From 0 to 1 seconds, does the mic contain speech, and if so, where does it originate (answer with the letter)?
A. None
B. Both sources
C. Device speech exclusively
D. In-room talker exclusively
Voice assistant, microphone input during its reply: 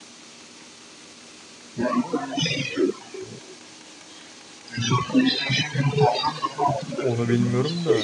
A